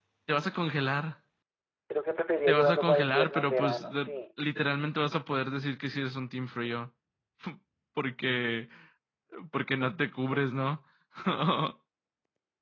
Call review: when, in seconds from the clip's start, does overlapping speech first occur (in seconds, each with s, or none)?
2.5 s